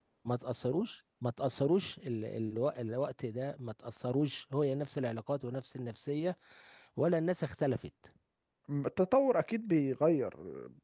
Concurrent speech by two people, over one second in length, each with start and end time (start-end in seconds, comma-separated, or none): none